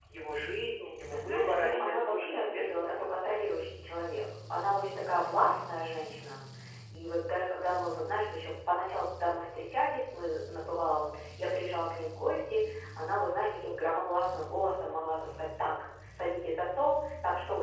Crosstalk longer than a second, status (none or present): present